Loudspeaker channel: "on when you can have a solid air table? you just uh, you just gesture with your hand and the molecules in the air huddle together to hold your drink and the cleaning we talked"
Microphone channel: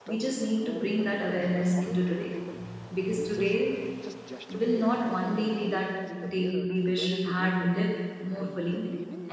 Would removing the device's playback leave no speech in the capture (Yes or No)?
No